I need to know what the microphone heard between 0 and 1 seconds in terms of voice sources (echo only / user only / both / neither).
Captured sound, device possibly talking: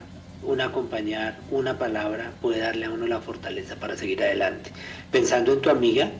echo only